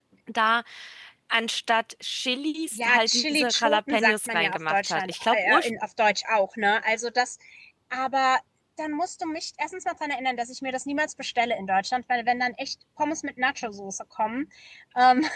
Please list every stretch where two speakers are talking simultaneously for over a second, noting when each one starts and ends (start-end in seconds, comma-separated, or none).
2.8-5.7